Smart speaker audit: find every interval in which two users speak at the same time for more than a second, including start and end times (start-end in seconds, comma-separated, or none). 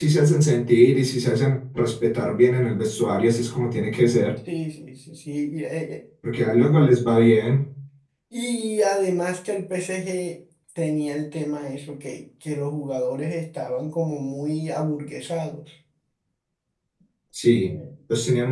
none